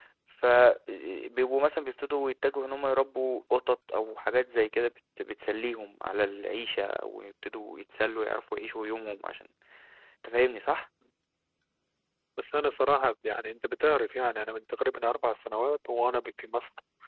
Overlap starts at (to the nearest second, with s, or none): none